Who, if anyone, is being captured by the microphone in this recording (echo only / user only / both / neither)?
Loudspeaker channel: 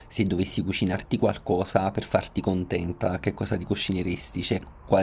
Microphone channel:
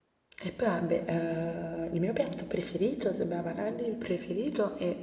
user only